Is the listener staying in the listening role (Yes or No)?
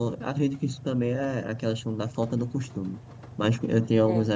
Yes